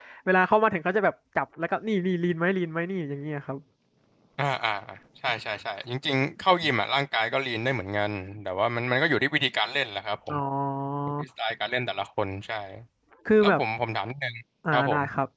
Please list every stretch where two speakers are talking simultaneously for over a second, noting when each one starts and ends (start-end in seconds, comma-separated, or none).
none